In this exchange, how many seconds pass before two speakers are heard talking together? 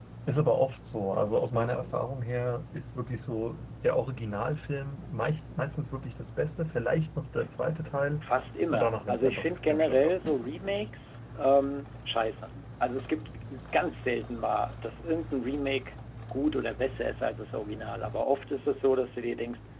9 s

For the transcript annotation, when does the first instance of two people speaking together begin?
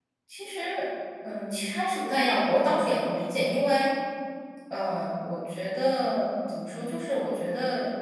none

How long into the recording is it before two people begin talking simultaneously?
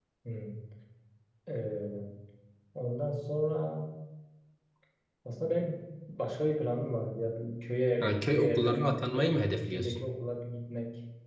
8 s

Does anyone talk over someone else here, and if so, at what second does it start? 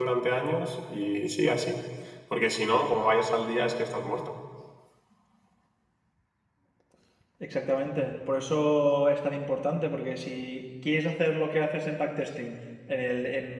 none

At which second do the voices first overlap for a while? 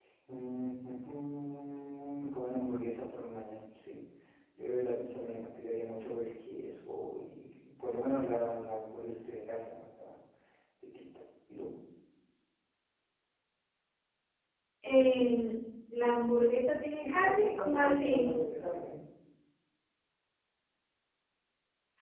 17 s

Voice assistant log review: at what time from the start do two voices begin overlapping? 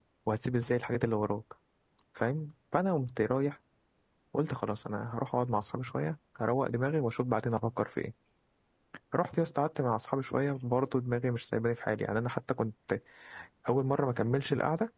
none

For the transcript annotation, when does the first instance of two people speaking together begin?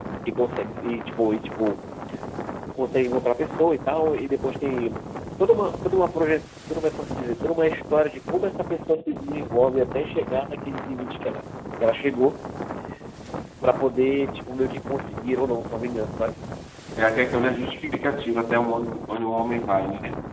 none

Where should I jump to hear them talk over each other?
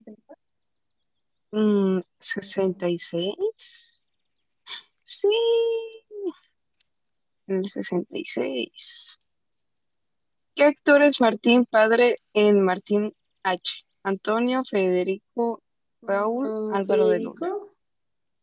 16 s

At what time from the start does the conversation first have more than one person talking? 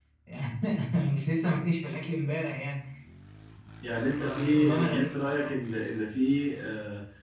4 s

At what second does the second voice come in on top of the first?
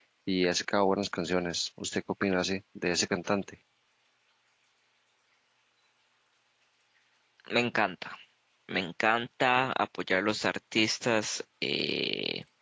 none

